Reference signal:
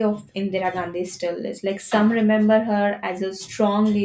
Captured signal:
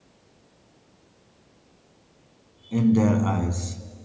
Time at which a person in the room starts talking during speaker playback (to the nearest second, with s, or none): 3 s